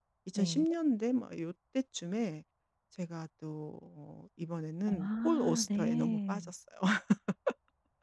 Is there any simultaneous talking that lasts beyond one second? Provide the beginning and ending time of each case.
4.9-6.5

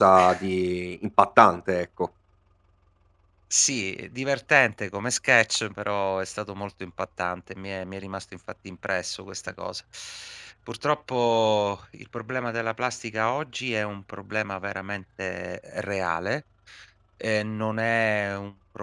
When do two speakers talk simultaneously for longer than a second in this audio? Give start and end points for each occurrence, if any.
none

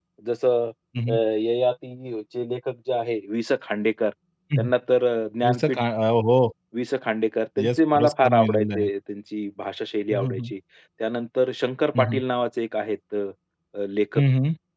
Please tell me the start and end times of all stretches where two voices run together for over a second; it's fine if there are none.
7.6-8.9

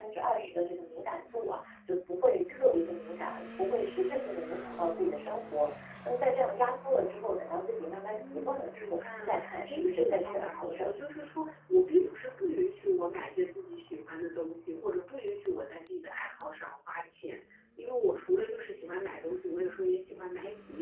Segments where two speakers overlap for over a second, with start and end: 8.1-10.9

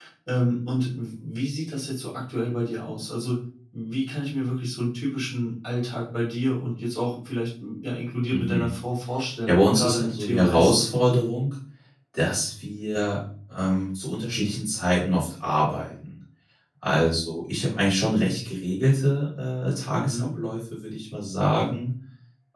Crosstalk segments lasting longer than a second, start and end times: 9.5-10.8

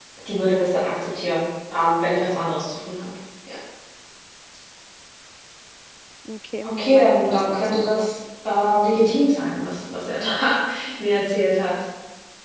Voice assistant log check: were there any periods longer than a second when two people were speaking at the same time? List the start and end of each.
6.8-8.1

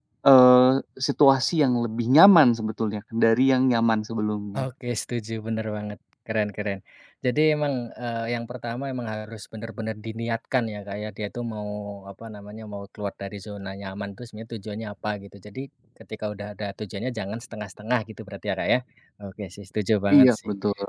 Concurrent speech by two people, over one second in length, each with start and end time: none

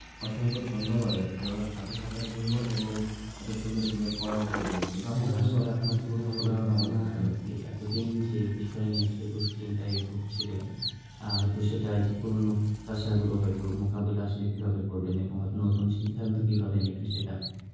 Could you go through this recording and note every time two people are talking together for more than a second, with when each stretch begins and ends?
5.1-7.5

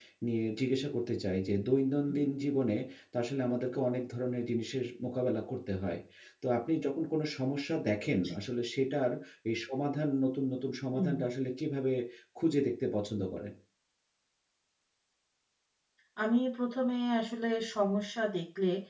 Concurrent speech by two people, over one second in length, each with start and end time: none

